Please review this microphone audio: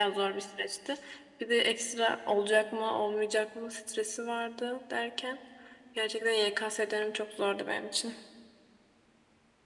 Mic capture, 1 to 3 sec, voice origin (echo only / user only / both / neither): echo only